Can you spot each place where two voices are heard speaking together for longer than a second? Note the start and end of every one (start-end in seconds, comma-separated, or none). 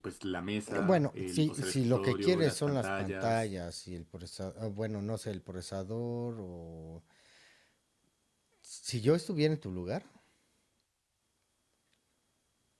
0.8-3.5